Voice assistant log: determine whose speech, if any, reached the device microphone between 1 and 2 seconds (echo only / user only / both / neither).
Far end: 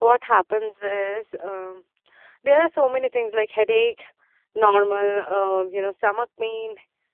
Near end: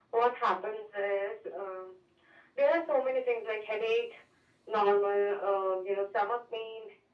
echo only